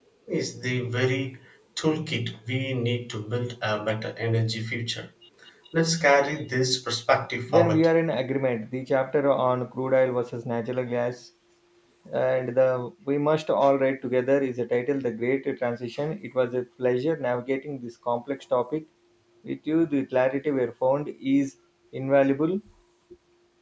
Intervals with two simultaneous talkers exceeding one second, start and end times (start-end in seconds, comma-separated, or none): none